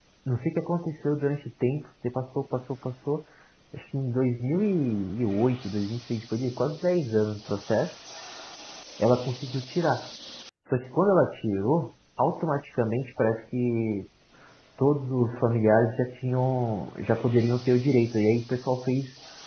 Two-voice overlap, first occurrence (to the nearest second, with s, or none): none